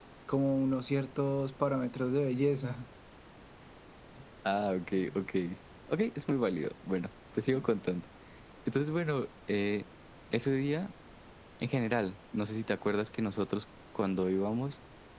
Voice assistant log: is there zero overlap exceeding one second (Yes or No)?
Yes